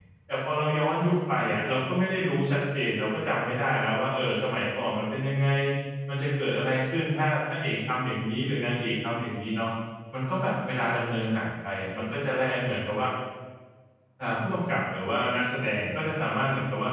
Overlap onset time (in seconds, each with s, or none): none